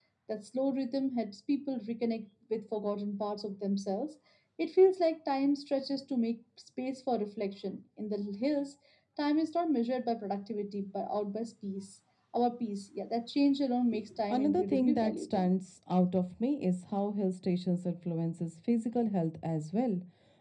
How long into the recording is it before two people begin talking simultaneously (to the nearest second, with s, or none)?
14 s